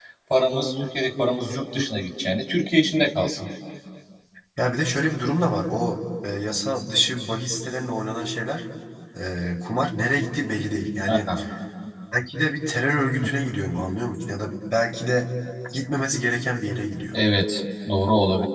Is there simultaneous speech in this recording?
No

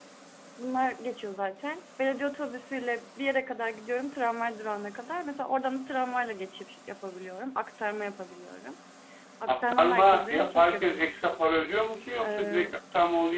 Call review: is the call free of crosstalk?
No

